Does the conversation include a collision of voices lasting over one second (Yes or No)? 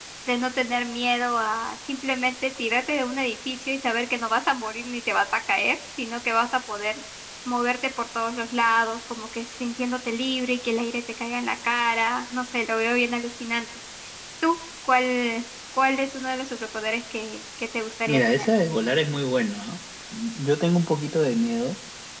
No